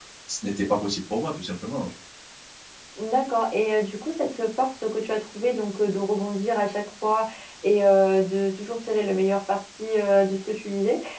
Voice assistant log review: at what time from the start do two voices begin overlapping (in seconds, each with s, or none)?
none